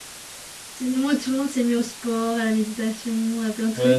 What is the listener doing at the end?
taking over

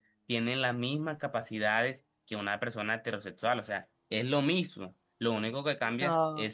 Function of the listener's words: listening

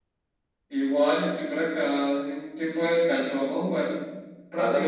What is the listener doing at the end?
taking over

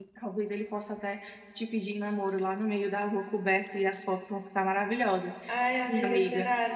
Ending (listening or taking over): taking over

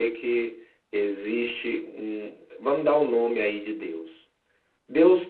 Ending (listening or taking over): listening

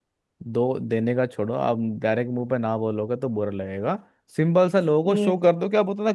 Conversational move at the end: listening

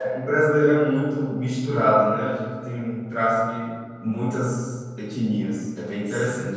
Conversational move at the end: taking over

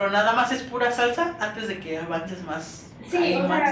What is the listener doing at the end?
taking over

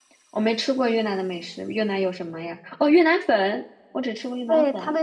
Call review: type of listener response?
taking over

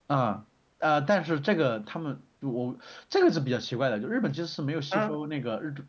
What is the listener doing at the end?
listening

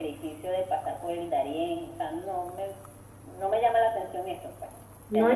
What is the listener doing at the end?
listening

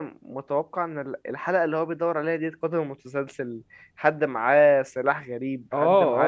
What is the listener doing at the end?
taking over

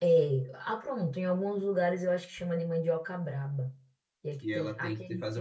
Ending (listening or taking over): taking over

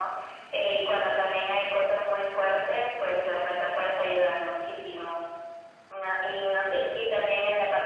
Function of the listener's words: listening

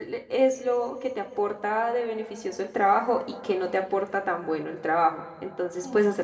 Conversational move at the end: listening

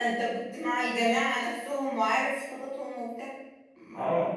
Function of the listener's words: taking over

